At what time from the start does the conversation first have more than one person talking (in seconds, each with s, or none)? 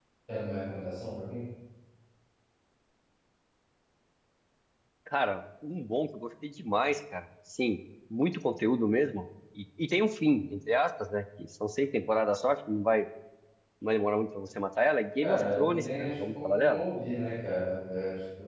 15.2 s